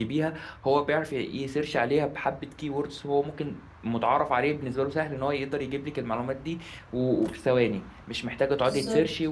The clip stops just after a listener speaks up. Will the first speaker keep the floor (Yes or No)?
Yes